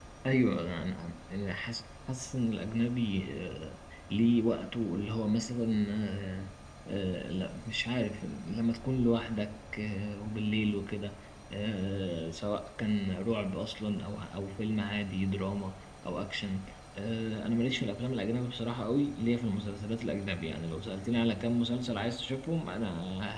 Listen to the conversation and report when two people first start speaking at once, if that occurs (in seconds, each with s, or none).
none